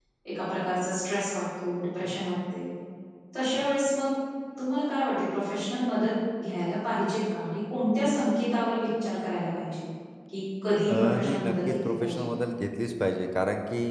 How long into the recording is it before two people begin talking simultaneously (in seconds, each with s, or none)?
10.9 s